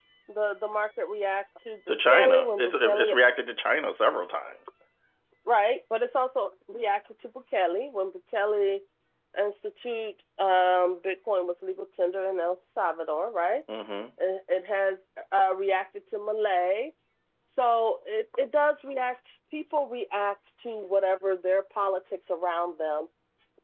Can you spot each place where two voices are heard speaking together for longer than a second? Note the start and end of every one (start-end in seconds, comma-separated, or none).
1.9-3.1